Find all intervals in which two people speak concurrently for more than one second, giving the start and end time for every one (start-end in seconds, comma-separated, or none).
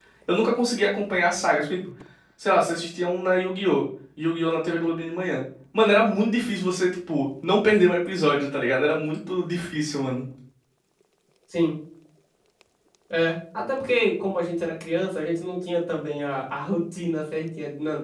none